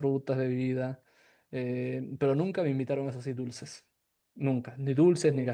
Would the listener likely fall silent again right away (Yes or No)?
Yes